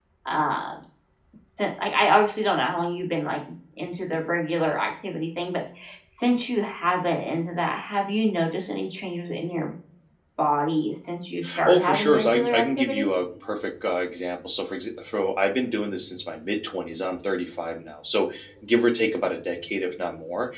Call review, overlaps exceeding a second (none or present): present